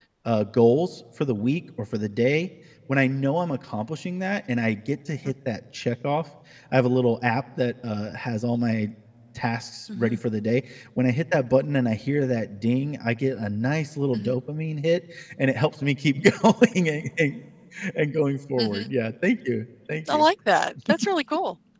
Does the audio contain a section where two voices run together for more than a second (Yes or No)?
No